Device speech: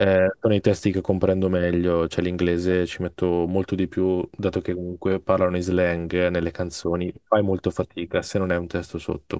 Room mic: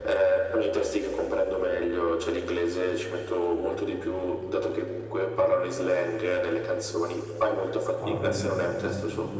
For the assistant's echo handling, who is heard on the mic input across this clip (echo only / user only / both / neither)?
both